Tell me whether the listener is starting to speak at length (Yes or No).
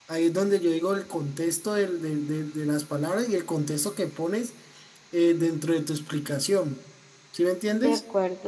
Yes